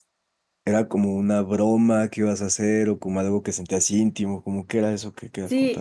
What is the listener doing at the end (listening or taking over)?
taking over